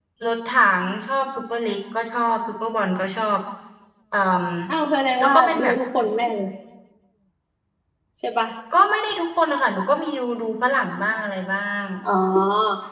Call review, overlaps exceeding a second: none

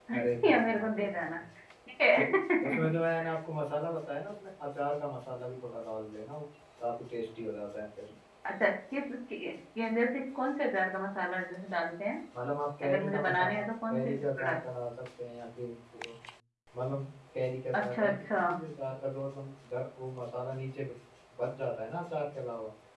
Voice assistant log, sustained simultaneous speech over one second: present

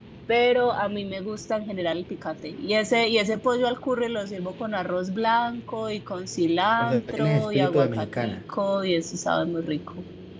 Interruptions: present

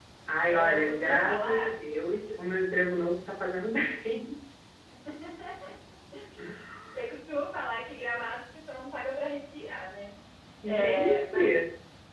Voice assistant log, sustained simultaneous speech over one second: present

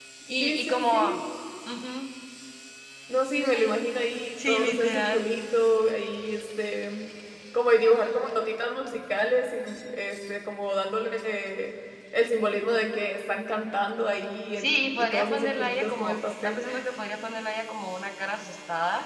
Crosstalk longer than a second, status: present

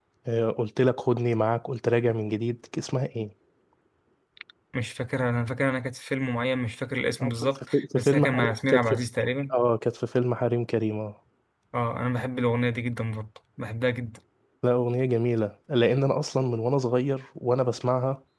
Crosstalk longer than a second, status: present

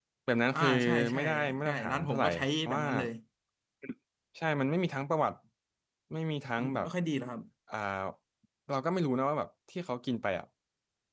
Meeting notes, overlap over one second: present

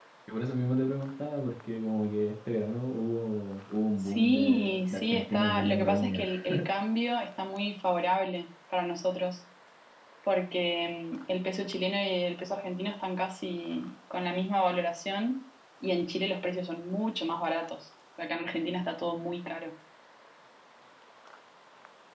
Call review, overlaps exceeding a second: present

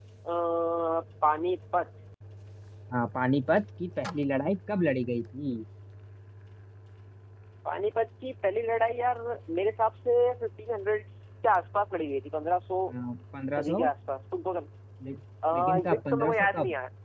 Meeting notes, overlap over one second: present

